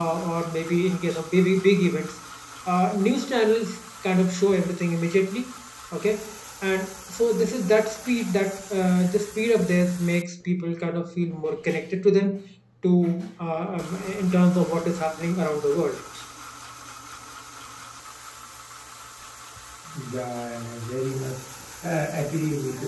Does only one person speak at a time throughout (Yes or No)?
Yes